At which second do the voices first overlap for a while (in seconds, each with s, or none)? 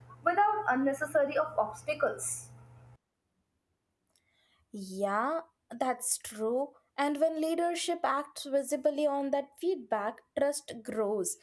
none